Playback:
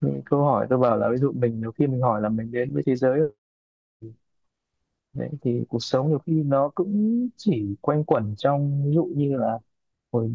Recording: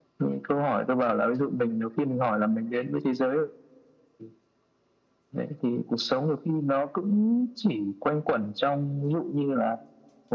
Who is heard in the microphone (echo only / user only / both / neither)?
echo only